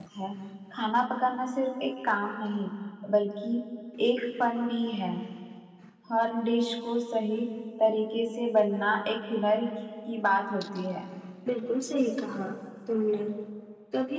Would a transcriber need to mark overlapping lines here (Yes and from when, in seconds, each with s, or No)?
No